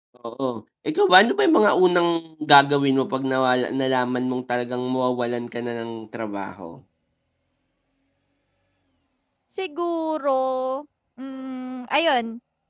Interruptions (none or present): none